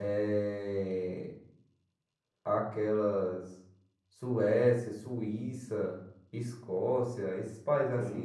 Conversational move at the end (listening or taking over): taking over